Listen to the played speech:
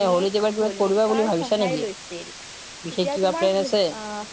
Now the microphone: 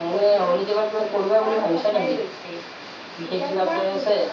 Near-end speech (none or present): none